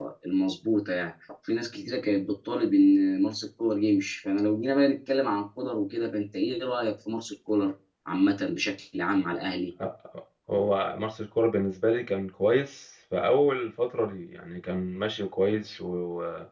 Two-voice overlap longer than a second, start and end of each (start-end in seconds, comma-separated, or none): none